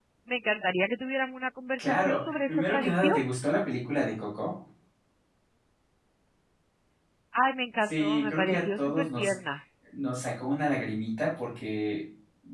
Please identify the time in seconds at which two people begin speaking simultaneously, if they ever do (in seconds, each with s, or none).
1.8 s